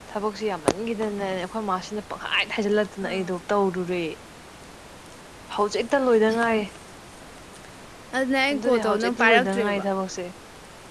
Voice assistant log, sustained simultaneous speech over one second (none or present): present